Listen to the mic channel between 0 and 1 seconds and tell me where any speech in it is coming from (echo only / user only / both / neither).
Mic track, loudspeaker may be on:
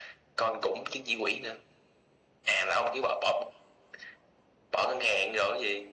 echo only